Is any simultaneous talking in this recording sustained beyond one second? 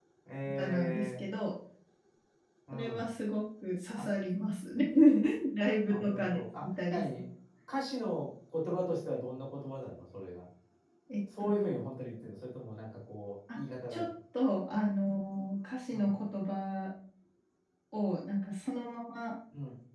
Yes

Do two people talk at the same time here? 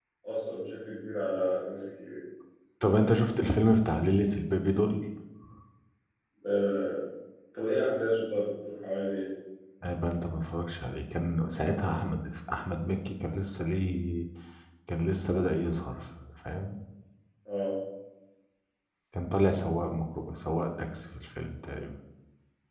No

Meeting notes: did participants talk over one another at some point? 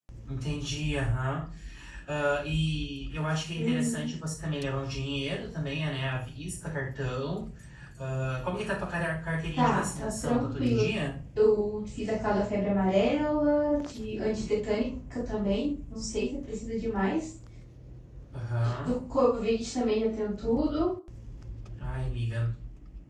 Yes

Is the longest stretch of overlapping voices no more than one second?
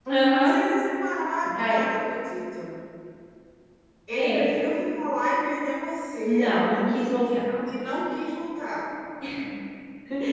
Yes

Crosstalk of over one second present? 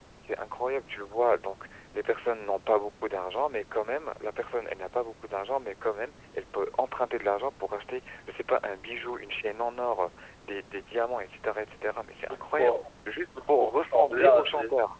Yes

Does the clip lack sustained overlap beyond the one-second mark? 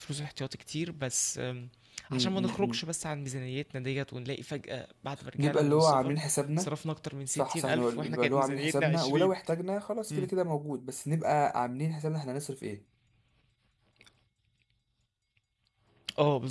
No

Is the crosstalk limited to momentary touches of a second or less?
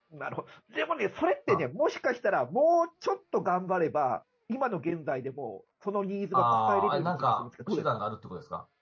No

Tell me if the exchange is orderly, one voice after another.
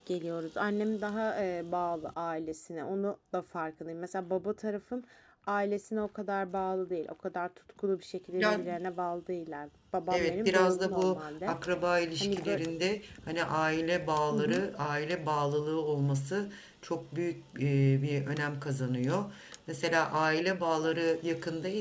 No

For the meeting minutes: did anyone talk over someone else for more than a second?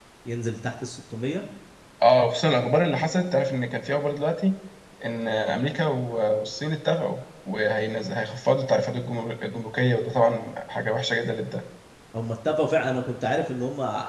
No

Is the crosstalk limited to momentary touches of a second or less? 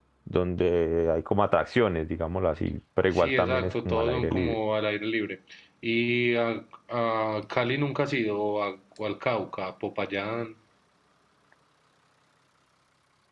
No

